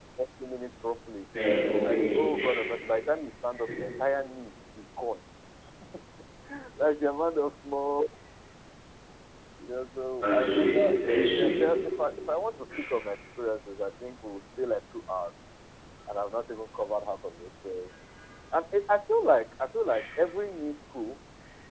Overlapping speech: Yes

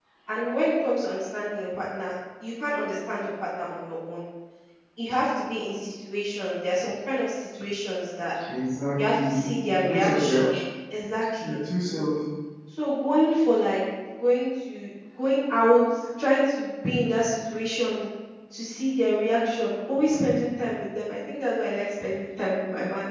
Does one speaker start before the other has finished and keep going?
Yes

